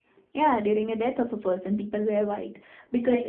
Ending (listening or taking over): listening